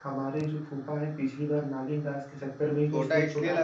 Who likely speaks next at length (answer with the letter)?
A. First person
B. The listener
B